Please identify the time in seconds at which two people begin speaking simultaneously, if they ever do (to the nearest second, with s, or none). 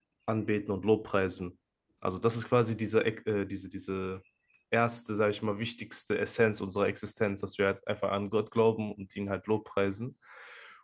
none